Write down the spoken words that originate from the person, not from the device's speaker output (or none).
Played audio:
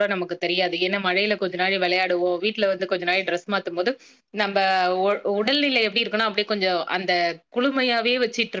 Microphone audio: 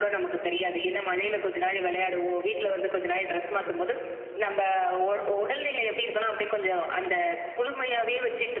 none